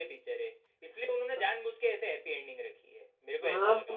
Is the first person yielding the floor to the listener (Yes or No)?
Yes